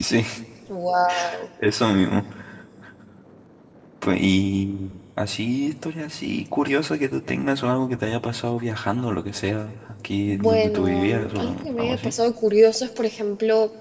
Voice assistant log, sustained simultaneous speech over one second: present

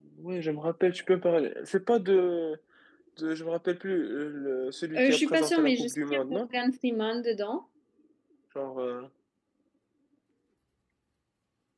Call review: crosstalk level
present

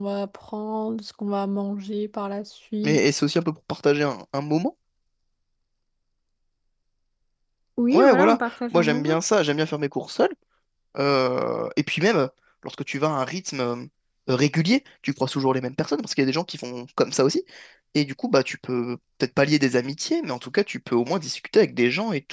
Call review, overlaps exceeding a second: present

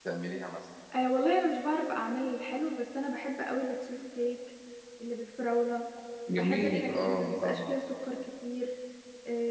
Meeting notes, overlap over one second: present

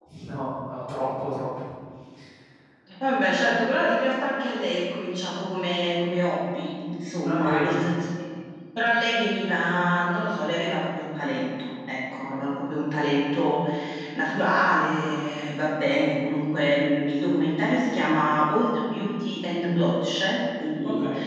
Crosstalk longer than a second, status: none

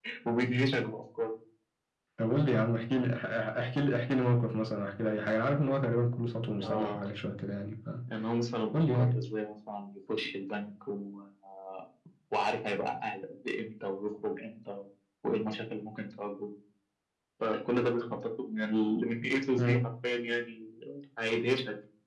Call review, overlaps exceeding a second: none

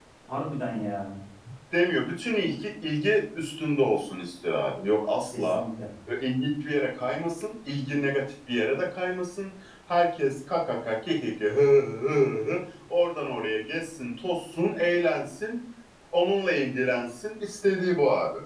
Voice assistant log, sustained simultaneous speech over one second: none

